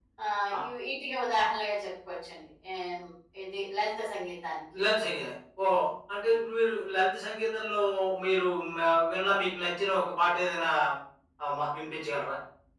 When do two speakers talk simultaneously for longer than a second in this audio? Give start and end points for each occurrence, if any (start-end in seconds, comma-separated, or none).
none